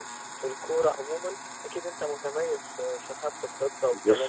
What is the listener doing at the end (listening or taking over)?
taking over